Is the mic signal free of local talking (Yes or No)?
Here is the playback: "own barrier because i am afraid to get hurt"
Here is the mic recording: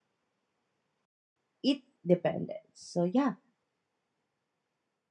No